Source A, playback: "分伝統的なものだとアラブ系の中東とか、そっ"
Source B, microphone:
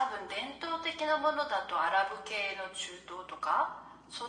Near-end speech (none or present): none